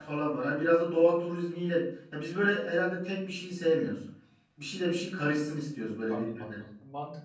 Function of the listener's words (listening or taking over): taking over